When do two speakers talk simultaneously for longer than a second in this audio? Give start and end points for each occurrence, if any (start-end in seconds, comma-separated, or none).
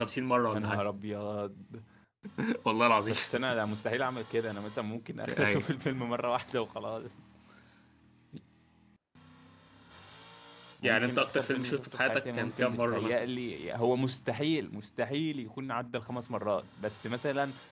10.8-13.2